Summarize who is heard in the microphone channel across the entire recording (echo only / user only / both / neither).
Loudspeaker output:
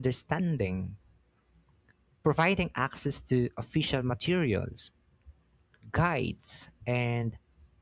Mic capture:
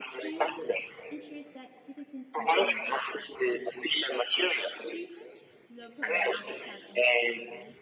both